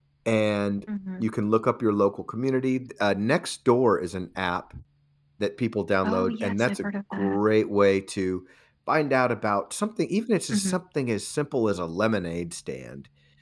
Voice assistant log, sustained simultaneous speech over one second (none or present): present